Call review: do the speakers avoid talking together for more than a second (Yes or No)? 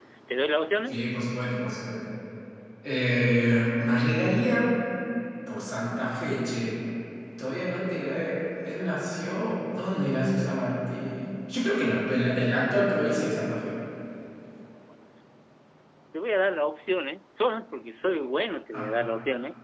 Yes